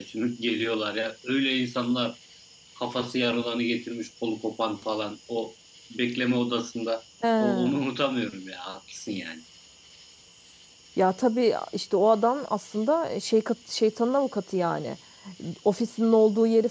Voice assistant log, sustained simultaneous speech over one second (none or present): none